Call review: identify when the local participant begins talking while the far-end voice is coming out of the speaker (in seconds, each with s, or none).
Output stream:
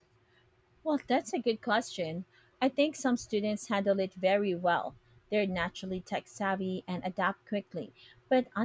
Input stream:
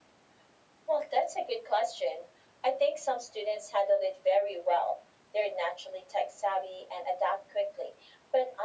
none